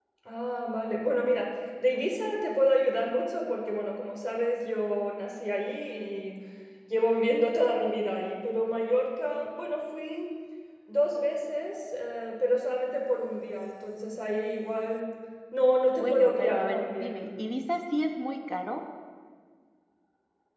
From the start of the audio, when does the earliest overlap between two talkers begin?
16.0 s

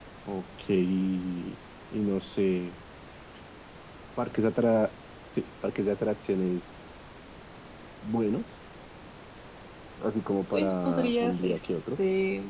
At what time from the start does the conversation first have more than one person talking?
10.5 s

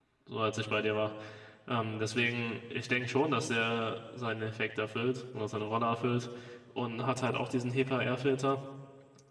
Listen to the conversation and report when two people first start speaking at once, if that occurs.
none

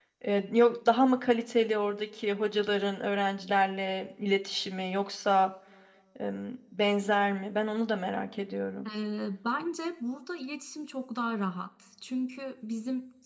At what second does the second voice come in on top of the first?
none

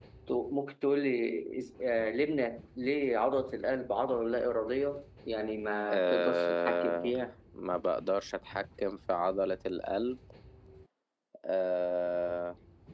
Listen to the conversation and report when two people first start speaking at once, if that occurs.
5.9 s

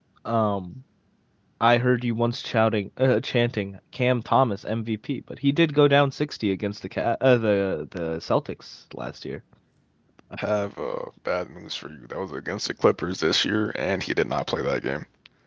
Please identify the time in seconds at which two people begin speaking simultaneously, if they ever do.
none

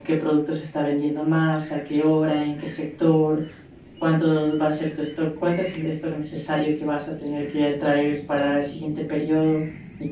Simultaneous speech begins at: none

